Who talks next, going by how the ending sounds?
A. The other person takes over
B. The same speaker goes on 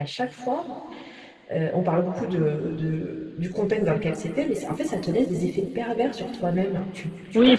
A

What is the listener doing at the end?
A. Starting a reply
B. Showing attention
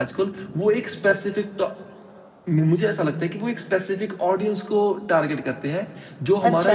A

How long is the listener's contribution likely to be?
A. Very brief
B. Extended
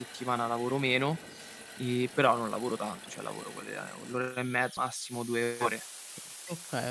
B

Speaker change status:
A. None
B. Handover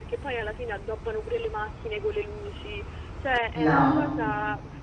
A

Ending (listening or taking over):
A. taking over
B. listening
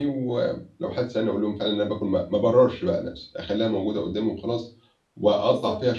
B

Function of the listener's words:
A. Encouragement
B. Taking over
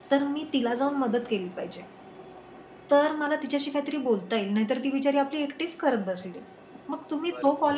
A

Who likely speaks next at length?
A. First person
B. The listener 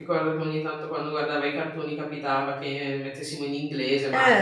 A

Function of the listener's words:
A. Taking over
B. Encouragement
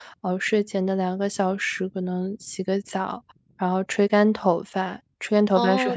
A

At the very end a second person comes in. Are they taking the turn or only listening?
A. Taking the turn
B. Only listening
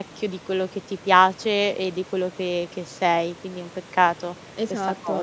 A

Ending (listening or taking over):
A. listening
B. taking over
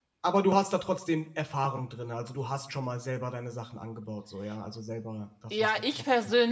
B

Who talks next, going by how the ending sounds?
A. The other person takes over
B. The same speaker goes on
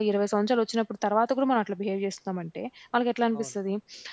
B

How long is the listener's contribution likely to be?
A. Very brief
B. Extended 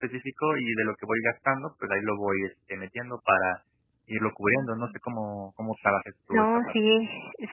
B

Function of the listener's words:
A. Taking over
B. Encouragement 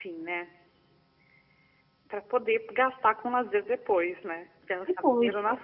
A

